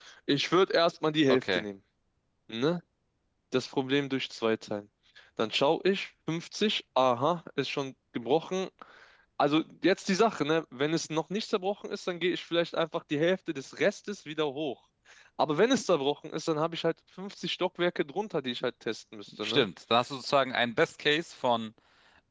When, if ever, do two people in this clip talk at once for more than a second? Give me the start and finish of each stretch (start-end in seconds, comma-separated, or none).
none